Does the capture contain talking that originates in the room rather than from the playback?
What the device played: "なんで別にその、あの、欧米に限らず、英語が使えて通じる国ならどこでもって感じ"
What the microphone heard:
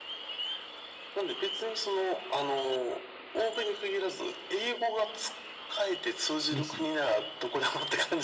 Yes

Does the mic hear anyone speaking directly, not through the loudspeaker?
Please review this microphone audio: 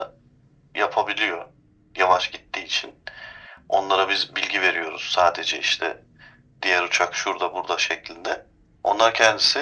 No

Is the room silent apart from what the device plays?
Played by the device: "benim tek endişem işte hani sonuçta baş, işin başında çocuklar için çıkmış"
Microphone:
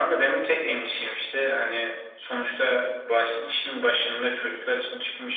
Yes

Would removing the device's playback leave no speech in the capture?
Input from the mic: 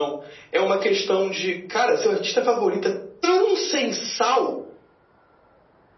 Yes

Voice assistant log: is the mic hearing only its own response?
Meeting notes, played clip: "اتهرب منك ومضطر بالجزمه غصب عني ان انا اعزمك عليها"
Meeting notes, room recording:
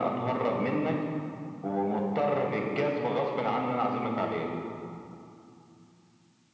Yes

